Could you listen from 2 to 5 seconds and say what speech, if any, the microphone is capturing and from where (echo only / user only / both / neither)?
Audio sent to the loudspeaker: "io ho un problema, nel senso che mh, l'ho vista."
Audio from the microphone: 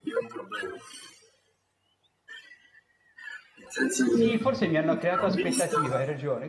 both